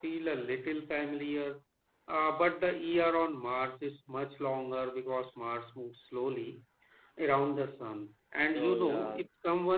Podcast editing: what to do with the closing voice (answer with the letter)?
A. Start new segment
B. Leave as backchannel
B